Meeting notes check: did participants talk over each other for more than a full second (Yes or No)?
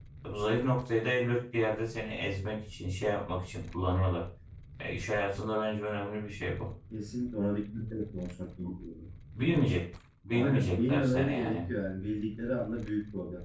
Yes